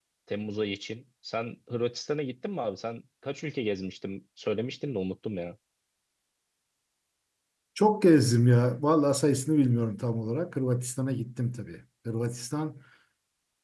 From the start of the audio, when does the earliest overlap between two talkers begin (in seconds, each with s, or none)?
none